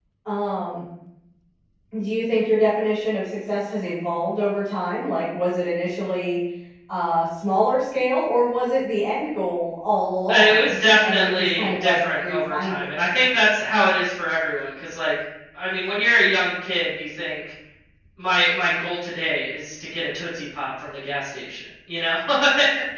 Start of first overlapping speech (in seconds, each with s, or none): 10.3 s